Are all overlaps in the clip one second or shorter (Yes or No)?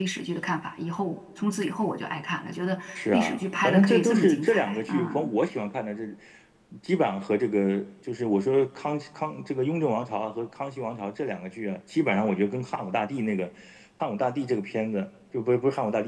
No